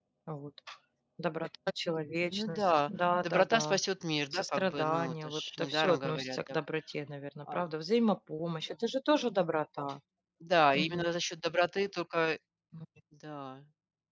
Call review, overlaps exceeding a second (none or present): present